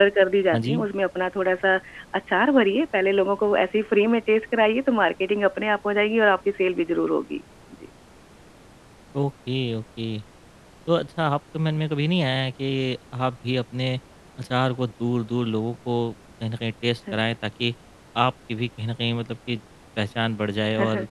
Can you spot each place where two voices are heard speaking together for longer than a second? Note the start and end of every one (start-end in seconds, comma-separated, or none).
none